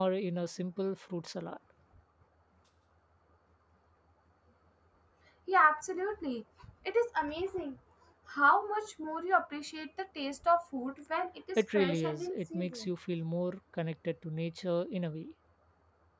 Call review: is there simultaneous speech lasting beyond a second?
Yes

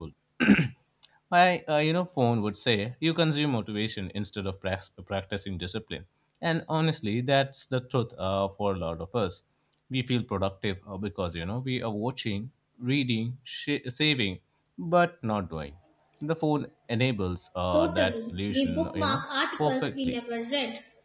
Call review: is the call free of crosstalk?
No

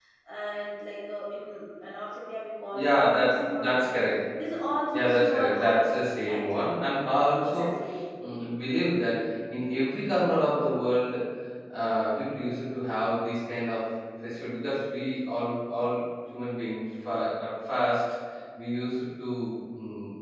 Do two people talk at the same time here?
Yes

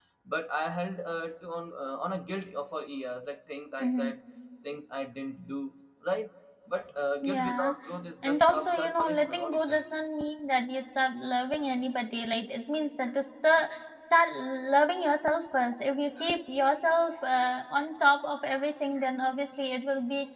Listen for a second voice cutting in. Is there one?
Yes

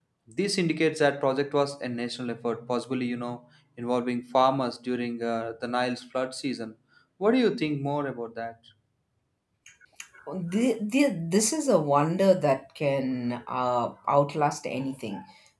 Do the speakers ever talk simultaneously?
No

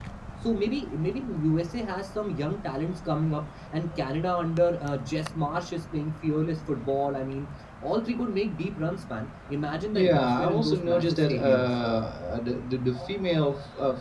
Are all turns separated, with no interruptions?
No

